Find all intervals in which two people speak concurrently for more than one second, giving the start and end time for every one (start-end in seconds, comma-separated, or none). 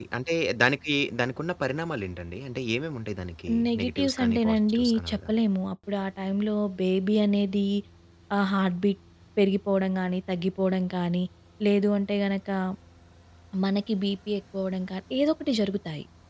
3.7-5.3